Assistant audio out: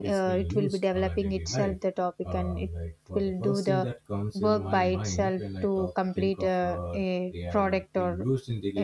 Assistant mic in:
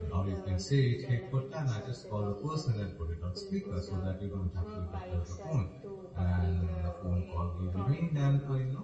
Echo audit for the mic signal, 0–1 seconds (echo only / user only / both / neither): both